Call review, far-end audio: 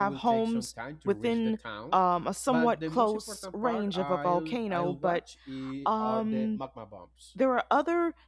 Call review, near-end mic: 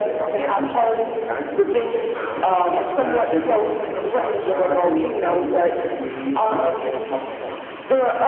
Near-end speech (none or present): none